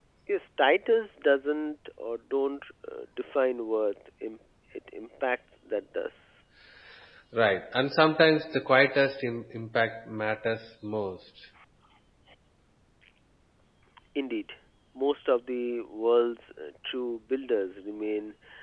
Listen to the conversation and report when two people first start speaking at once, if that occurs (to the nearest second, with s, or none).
none